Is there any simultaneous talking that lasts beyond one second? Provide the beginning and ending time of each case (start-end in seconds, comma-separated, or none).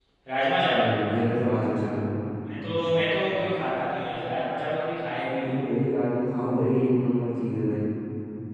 none